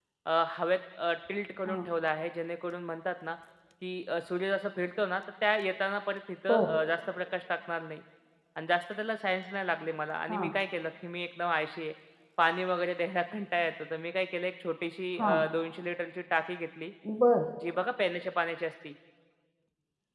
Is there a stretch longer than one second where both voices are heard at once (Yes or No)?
No